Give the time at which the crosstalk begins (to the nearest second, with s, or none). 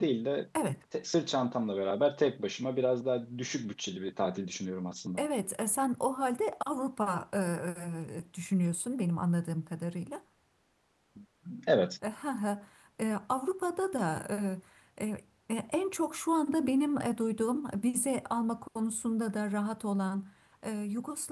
none